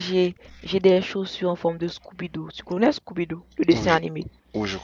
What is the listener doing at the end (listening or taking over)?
taking over